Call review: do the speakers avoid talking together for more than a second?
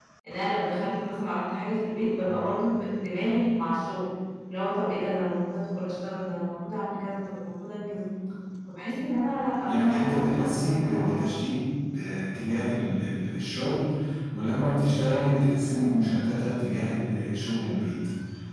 No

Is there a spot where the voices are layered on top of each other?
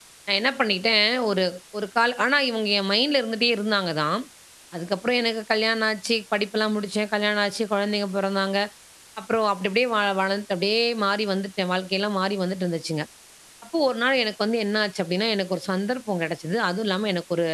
No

